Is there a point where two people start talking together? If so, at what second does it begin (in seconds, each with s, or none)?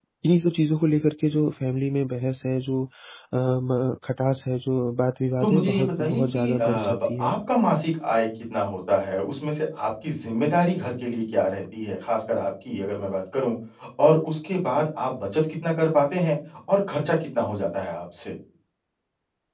5.4 s